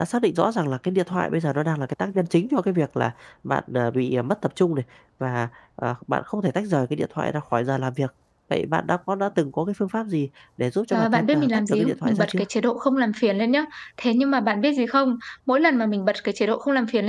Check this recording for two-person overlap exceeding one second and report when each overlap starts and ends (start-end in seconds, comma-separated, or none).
10.9-12.4